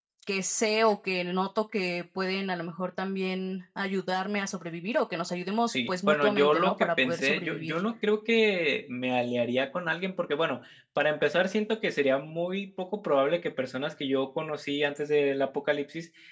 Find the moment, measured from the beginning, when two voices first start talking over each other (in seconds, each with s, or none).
5.7 s